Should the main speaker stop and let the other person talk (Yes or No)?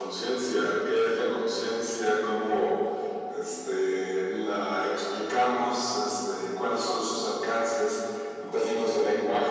No